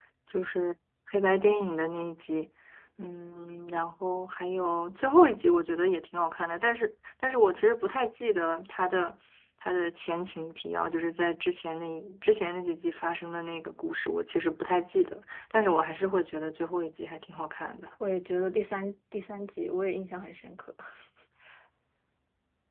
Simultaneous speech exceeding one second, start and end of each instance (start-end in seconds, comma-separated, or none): none